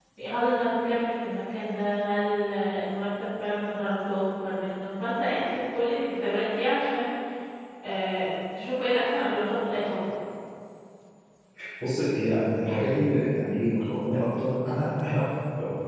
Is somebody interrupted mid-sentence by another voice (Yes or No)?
No